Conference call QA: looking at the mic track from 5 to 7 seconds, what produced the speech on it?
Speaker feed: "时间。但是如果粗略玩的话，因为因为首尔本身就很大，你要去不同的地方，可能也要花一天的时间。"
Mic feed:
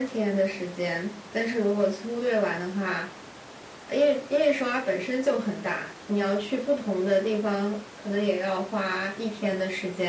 echo only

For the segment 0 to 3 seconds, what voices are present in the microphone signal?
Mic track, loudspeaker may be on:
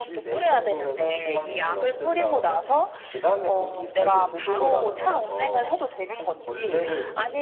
both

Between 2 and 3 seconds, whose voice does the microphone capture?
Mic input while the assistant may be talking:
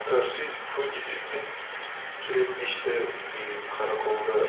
echo only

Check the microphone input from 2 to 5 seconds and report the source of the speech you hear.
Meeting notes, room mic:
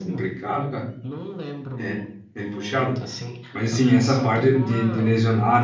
both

